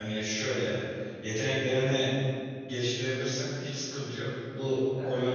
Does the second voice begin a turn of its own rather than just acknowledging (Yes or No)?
No